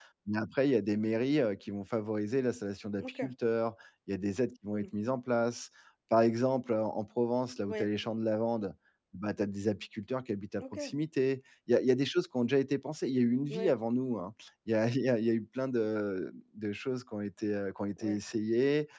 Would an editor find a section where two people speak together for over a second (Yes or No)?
No